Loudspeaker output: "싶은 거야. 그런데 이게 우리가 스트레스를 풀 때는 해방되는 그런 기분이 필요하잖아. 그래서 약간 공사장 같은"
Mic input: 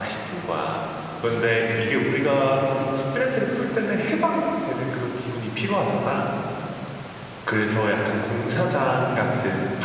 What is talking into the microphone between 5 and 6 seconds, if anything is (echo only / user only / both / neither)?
echo only